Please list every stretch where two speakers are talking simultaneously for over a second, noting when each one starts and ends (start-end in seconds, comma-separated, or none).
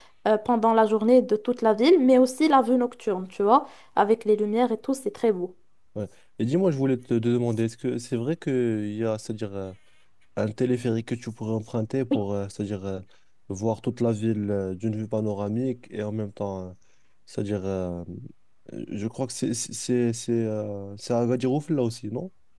none